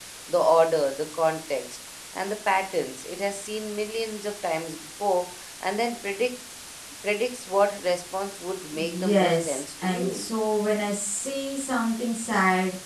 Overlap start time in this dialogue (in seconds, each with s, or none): 8.7 s